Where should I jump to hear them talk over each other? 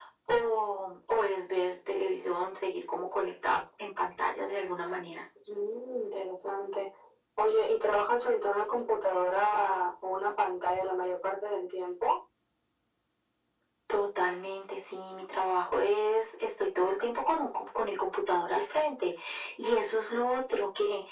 none

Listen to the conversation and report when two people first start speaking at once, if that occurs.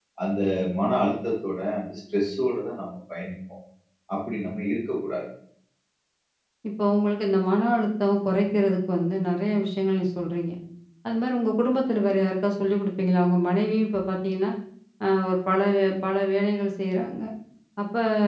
none

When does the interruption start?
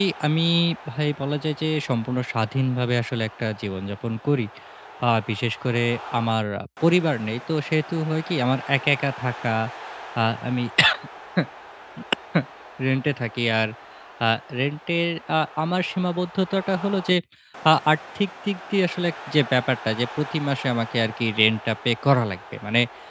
none

